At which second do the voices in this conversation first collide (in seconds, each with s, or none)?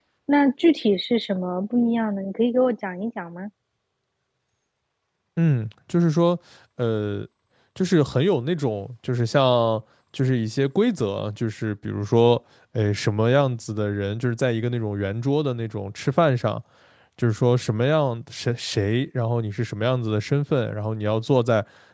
none